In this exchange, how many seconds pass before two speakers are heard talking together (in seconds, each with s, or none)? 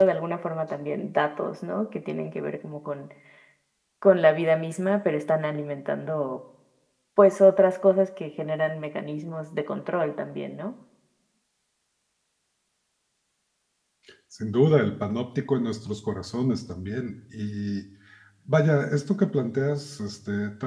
none